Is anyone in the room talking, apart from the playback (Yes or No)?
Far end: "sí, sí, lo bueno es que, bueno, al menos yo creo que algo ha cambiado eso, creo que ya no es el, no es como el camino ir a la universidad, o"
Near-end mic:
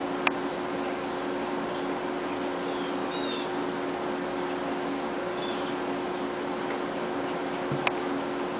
No